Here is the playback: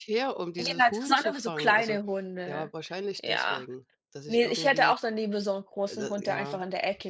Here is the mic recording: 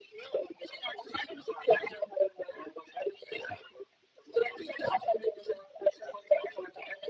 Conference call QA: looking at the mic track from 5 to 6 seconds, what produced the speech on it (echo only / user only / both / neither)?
echo only